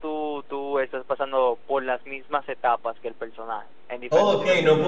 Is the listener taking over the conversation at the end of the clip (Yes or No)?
Yes